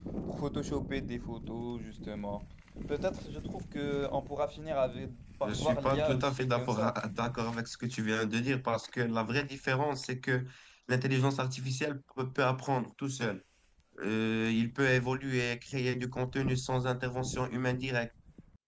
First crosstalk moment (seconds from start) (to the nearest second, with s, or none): 5 s